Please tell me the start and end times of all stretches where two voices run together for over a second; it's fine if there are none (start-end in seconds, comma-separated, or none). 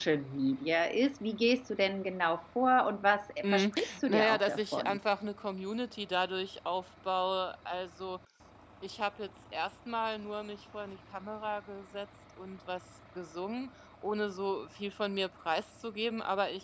3.4-5.0